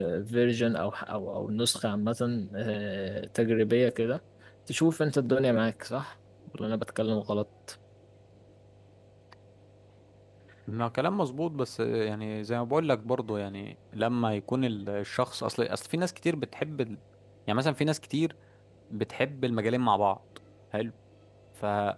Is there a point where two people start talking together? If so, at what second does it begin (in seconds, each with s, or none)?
none